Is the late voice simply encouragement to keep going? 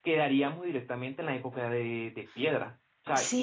Yes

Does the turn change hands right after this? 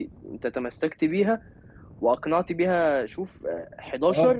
No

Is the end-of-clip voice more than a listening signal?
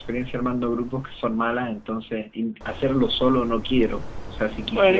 Yes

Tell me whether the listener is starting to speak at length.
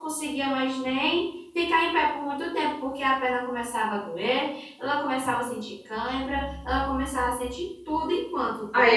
Yes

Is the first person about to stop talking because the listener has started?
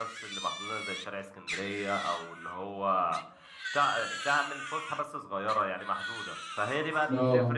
No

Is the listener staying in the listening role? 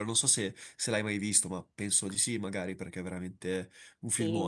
No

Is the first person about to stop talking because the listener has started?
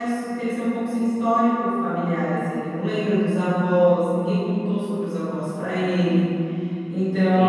No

